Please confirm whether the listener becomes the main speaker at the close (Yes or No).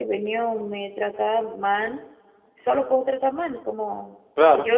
No